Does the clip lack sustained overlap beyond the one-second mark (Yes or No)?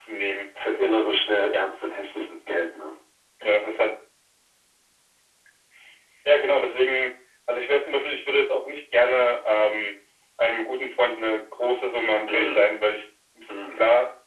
Yes